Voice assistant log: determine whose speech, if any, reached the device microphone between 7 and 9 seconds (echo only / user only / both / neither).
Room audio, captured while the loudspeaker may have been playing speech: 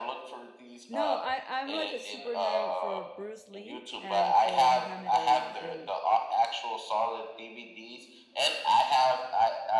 echo only